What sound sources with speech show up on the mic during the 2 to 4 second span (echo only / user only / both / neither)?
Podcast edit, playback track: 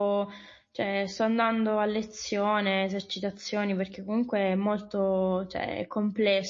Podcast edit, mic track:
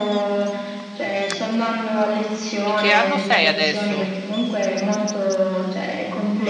both